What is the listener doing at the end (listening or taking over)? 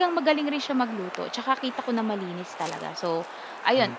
listening